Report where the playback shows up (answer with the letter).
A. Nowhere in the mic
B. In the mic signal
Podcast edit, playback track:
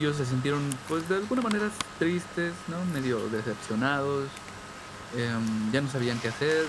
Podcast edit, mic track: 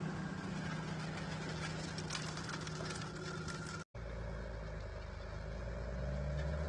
A